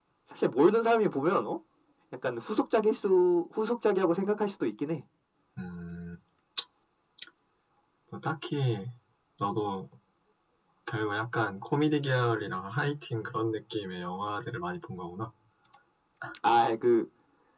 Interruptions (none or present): none